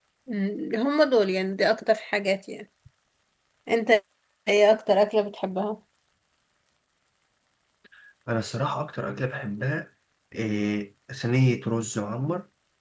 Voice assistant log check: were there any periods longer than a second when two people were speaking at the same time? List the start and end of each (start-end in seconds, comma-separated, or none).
none